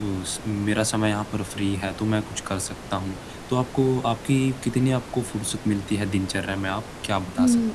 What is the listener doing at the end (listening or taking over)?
taking over